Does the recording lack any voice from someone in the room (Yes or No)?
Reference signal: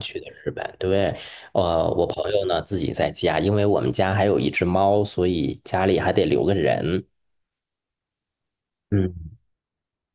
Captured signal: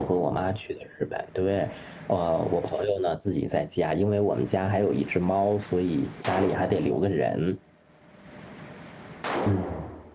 Yes